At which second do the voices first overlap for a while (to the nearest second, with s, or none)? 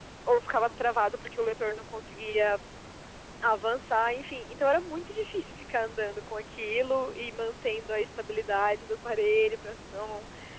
none